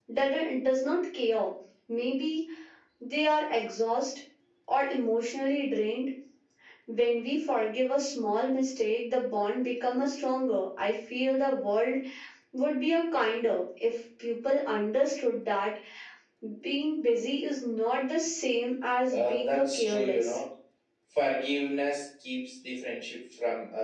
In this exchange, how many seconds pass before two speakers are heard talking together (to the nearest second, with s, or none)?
19 s